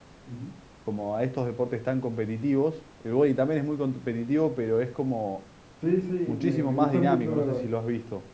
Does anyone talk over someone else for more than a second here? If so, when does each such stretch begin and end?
6.3-7.6

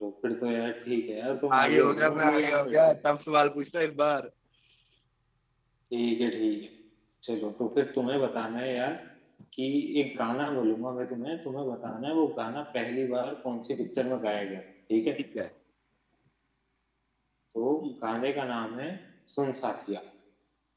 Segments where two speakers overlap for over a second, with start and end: 1.6-2.9

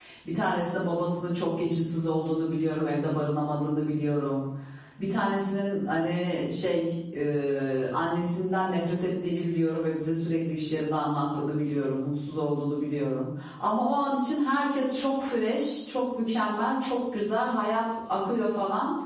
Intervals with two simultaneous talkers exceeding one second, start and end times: none

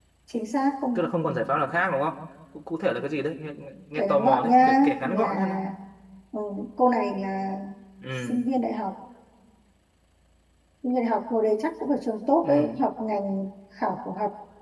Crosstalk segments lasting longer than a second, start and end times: 4.0-5.6

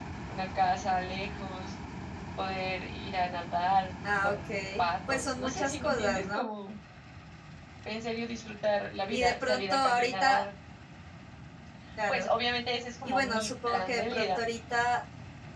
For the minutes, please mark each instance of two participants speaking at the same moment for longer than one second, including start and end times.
4.2-6.5, 9.1-10.4, 13.0-14.4

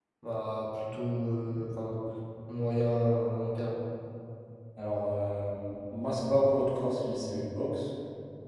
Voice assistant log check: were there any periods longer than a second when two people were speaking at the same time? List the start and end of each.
none

